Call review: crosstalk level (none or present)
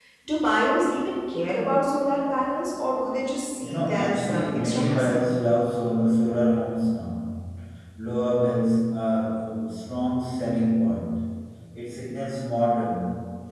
present